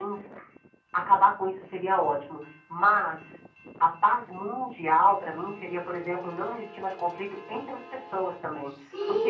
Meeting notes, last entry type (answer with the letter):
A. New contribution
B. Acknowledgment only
A